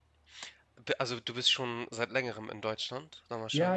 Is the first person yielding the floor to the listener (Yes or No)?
Yes